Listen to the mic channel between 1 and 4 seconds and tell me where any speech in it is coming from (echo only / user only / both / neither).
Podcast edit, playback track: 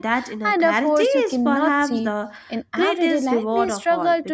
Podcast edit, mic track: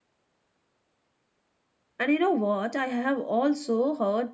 user only